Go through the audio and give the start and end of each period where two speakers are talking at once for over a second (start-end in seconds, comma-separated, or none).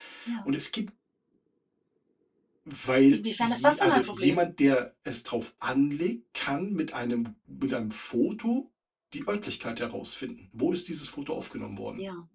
3.1-4.4